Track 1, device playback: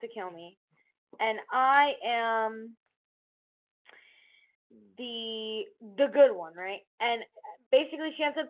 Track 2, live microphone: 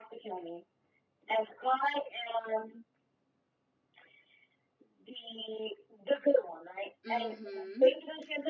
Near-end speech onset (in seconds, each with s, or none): 7.0 s